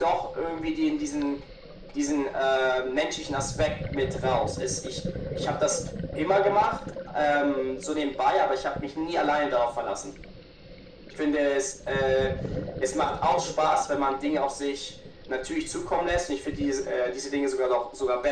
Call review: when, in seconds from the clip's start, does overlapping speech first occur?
none

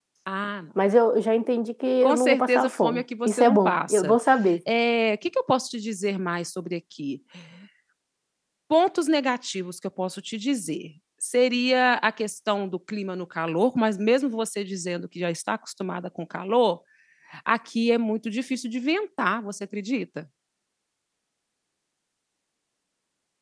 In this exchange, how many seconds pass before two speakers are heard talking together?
2.0 s

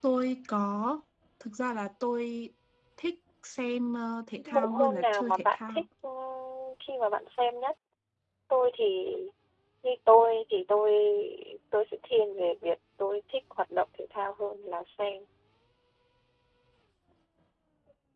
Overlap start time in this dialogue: 4.5 s

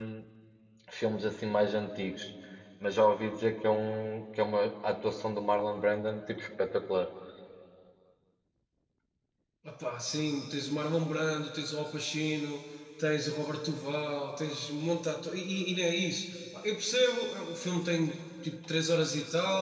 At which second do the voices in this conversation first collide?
none

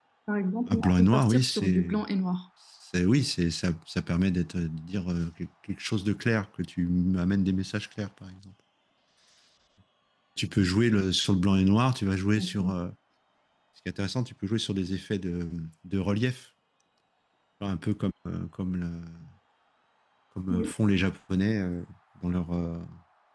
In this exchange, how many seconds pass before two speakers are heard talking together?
0.7 s

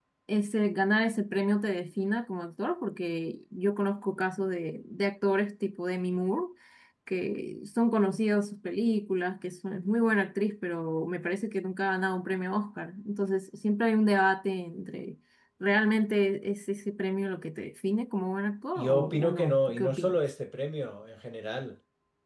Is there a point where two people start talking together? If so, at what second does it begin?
18.8 s

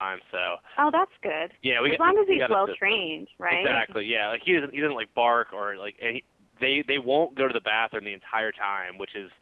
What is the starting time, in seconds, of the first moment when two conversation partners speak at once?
1.9 s

